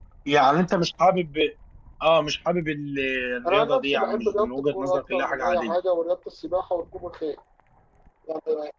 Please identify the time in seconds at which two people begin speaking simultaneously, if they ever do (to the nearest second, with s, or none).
3 s